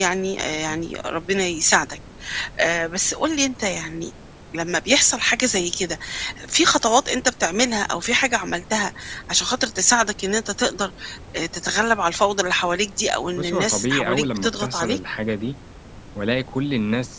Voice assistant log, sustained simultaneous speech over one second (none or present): present